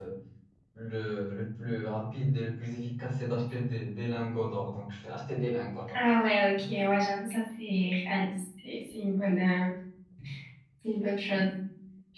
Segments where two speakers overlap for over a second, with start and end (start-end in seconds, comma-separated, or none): none